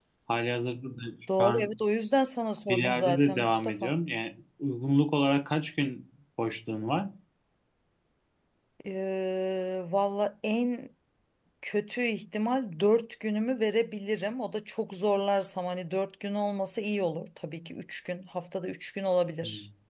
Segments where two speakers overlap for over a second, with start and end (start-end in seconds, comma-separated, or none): 2.7-3.9